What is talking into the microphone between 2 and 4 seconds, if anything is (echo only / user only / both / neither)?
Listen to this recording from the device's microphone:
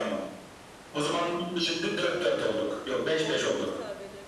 both